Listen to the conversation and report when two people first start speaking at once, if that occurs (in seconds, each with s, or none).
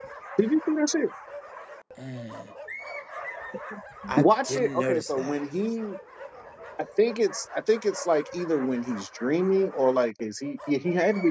4.1 s